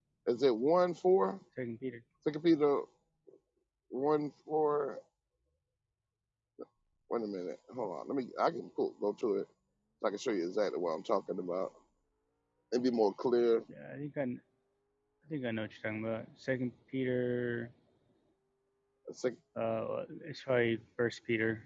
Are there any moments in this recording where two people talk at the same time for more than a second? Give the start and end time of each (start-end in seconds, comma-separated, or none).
none